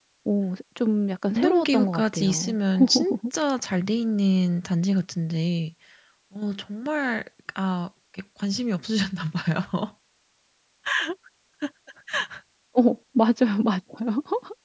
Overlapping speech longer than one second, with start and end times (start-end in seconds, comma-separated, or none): 1.4-2.6